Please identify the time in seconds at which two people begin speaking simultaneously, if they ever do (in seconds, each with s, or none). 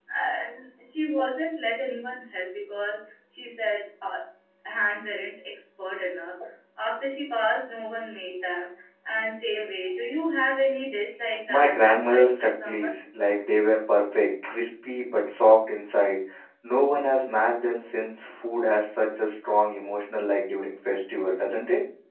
11.5 s